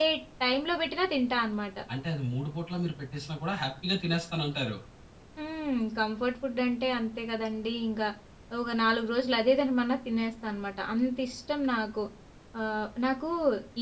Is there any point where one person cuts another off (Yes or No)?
No